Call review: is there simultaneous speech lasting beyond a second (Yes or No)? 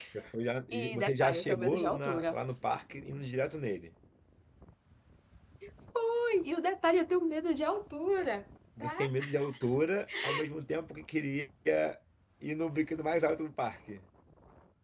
Yes